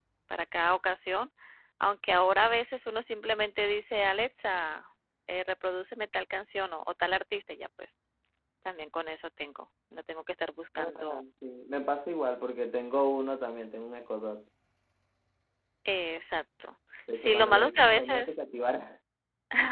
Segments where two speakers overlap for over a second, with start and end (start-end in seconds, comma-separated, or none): 17.1-18.3